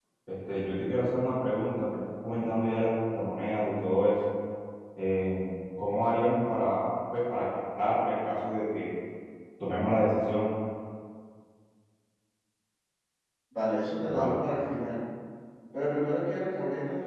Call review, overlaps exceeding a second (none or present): none